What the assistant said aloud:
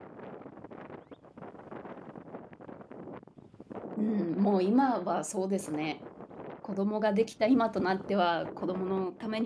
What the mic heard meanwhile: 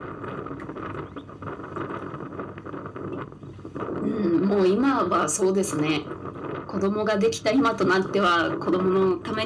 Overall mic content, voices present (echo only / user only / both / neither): echo only